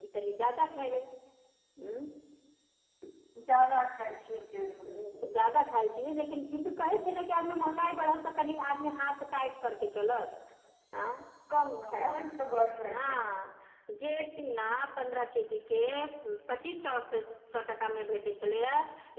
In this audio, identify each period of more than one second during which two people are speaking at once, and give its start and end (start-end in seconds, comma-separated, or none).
none